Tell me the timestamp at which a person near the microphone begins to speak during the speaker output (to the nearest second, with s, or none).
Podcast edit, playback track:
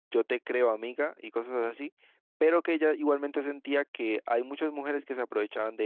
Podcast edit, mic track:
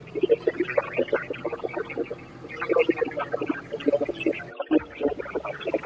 none